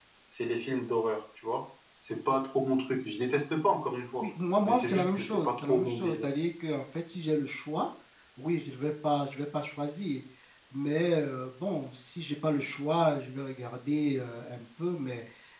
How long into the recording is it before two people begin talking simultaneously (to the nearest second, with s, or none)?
5 s